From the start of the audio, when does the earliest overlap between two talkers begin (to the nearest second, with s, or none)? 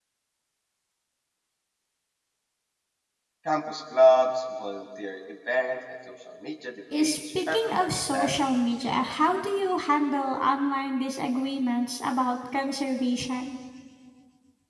7 s